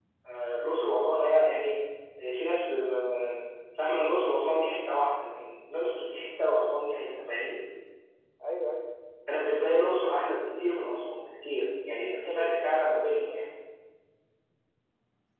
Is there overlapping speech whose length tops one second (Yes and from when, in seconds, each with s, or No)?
Yes, from 12.1 s